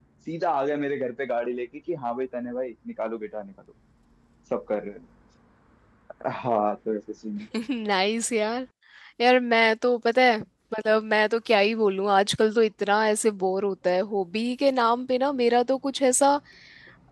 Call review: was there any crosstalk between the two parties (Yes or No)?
No